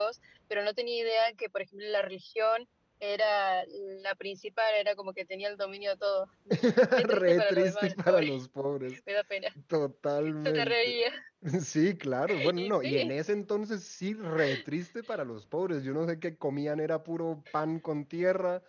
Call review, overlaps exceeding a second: present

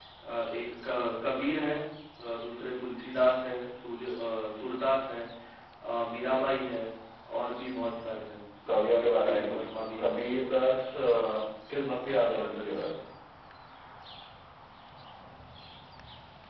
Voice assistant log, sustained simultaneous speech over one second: present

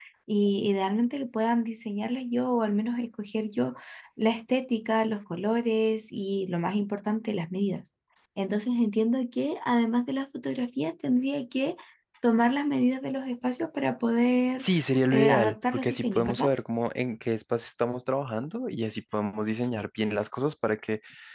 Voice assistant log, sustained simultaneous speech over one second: present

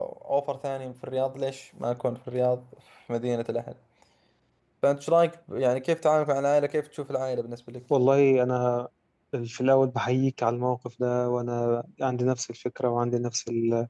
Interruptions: none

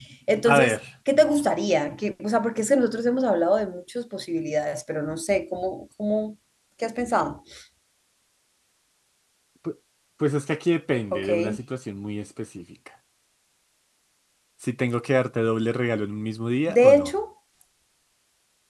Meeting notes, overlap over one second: none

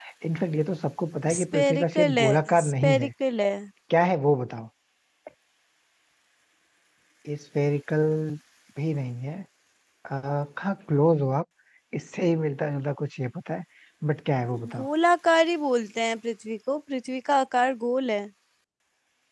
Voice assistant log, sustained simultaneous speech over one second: present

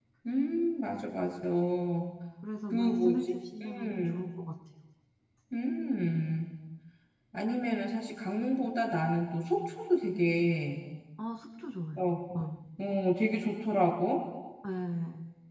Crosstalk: present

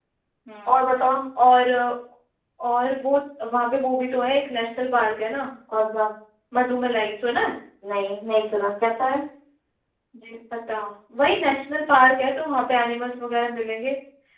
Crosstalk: none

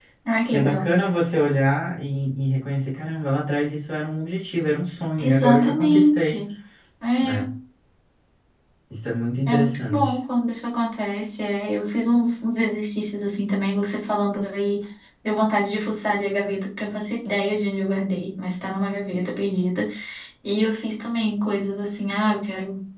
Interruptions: present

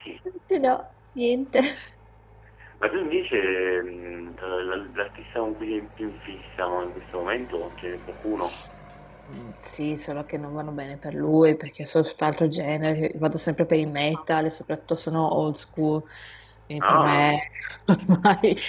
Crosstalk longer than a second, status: none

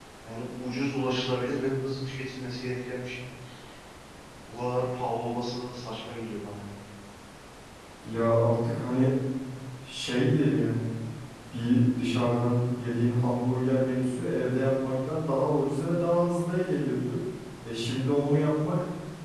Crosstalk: none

